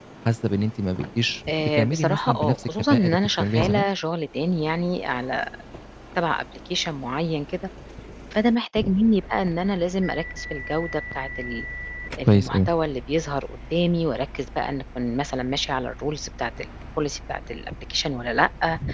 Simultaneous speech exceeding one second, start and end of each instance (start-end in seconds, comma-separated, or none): 1.8-3.9